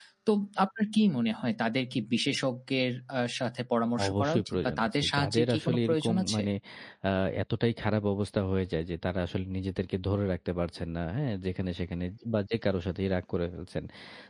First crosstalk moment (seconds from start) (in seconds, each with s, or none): 4.0 s